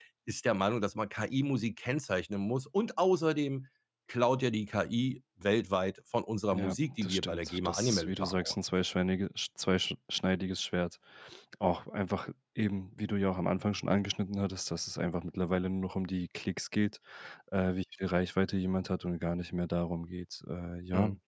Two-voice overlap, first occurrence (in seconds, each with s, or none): 6.5 s